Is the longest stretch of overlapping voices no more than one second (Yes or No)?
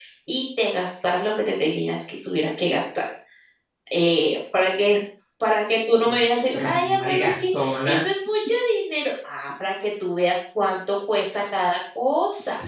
No